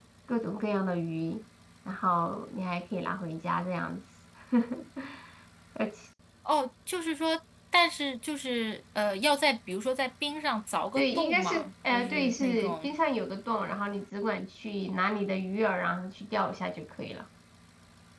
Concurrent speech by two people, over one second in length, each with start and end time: 10.9-12.9

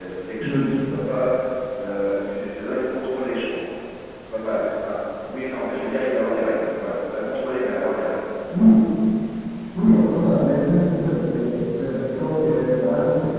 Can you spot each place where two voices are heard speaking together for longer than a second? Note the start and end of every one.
none

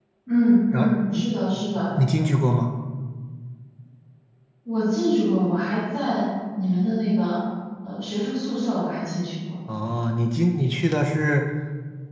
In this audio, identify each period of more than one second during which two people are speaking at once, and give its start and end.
none

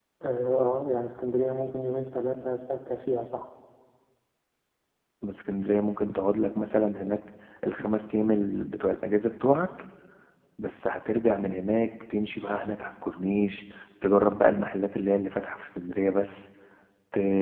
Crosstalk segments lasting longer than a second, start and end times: none

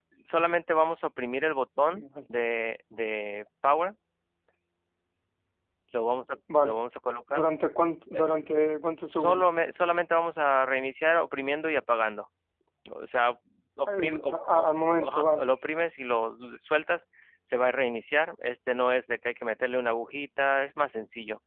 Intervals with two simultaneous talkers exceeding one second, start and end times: 14.0-15.5

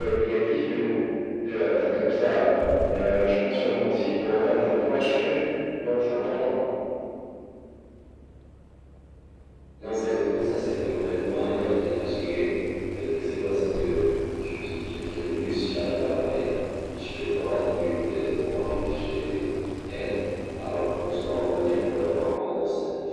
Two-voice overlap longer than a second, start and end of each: none

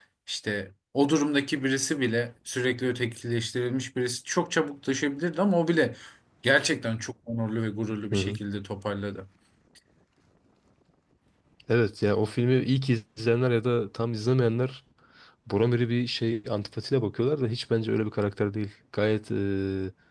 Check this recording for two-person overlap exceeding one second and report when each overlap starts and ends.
none

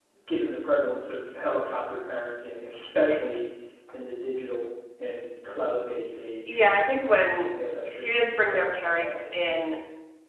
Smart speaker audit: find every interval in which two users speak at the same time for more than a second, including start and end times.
7.9-9.2

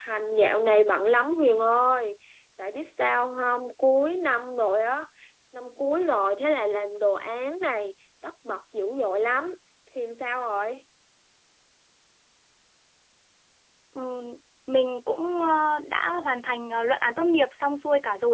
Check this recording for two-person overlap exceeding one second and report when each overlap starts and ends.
none

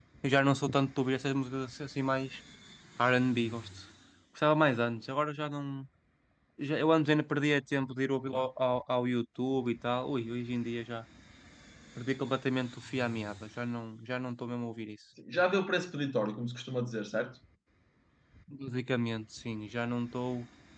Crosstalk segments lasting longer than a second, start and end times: none

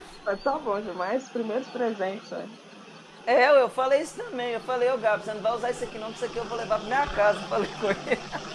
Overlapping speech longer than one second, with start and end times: none

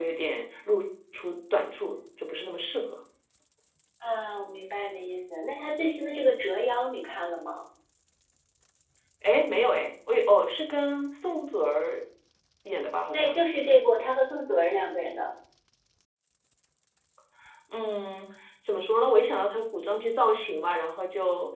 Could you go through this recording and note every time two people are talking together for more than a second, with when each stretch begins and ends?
none

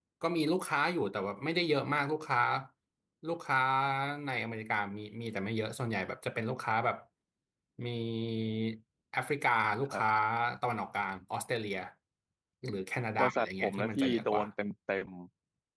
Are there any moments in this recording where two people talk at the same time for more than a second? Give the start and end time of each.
13.2-14.4

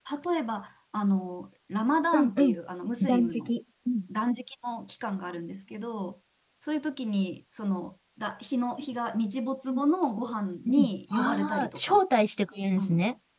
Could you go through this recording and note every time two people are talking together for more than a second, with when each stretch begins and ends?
10.7-12.0

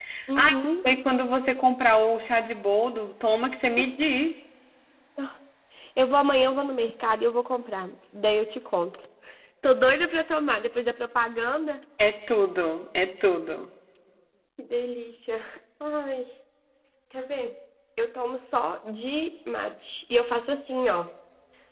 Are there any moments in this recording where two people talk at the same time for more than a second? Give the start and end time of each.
none

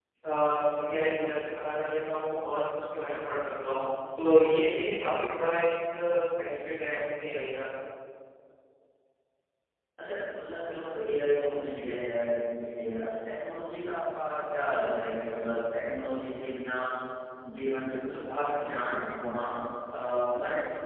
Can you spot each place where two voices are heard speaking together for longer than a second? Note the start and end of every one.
none

